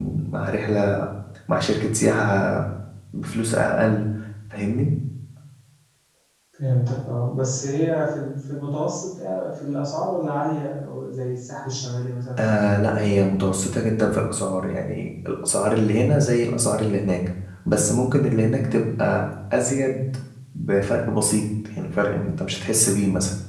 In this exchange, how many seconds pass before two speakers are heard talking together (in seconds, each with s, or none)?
none